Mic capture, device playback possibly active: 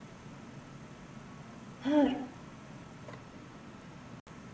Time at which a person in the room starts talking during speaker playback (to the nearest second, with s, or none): 2 s